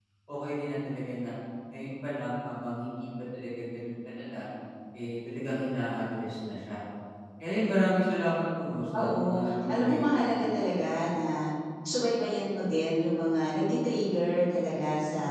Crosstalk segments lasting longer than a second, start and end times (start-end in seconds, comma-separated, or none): 8.9-10.2